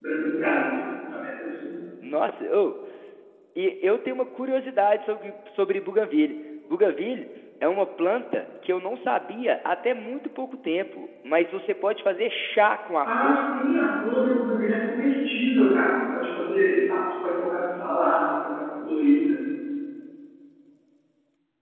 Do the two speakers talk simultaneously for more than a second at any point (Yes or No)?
No